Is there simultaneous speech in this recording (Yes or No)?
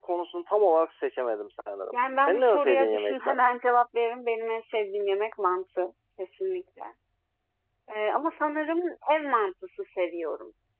Yes